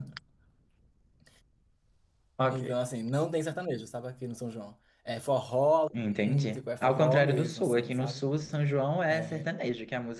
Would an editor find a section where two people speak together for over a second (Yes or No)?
Yes